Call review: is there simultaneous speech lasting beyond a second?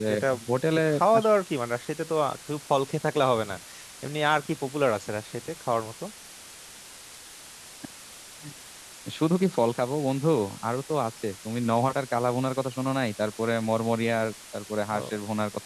No

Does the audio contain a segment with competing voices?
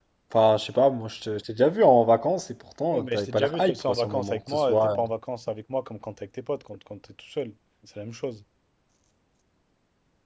Yes, from 2.9 s

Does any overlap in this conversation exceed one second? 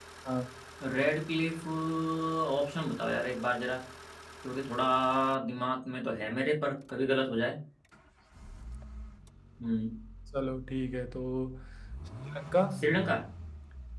No

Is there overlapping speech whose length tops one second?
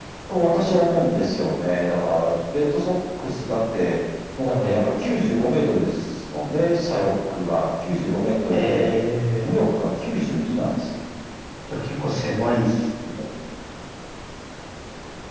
No

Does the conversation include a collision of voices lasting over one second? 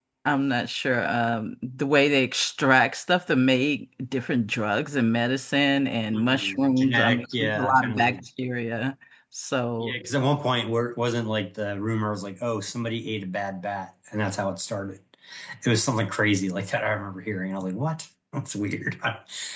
Yes, from 6.1 s

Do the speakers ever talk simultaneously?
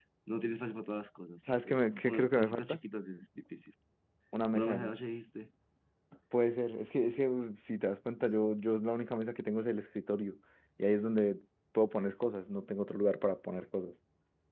Yes, from 1.4 s

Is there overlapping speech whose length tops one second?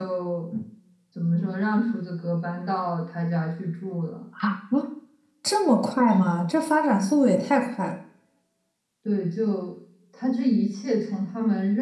No

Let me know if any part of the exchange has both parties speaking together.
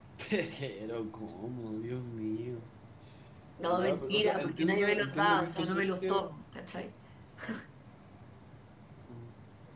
Yes, from 3.7 s

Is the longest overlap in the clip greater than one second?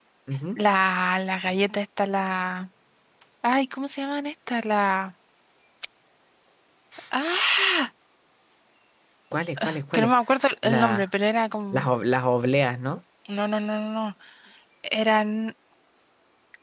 No

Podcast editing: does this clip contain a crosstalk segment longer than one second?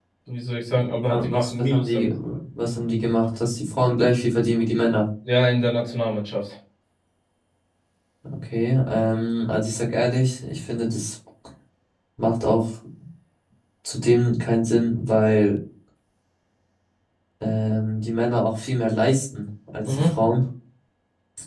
Yes, from 0.7 s

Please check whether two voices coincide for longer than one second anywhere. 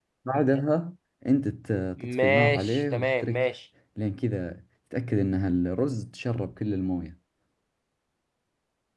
Yes, from 2.0 s

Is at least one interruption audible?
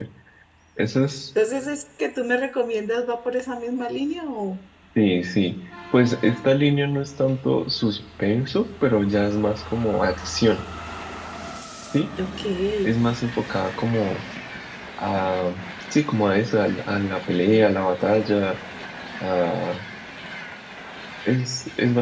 No

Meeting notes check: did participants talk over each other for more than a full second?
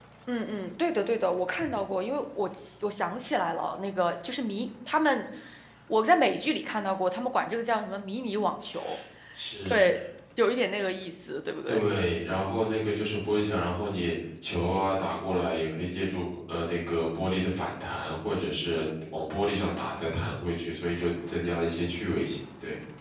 No

